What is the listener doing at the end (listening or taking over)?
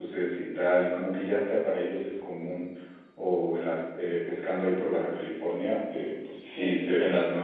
listening